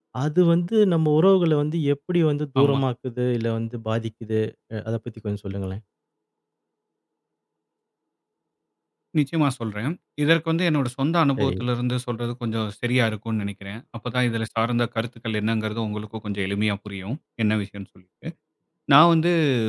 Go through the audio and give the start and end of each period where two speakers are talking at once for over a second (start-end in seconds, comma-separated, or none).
none